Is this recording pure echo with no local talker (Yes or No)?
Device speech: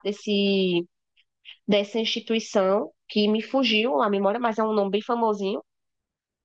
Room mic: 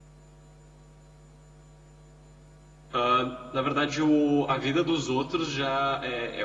No